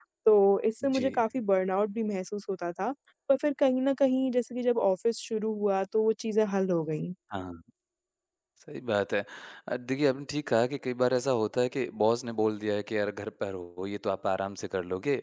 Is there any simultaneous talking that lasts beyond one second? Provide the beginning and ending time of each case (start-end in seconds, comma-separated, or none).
none